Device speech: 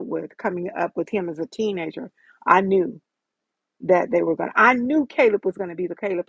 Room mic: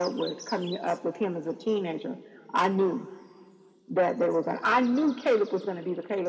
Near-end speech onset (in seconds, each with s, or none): none